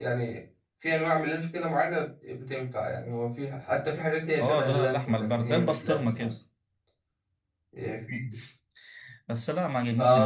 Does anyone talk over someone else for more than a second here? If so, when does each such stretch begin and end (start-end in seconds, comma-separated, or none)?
4.4-6.3